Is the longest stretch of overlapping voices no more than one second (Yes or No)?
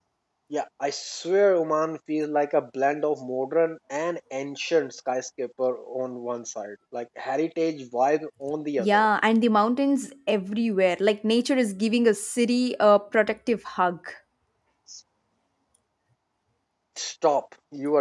Yes